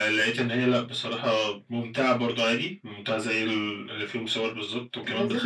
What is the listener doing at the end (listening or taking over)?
taking over